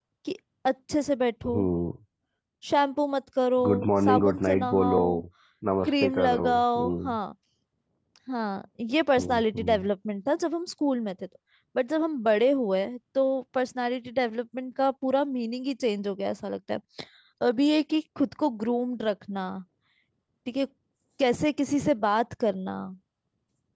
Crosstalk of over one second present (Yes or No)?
Yes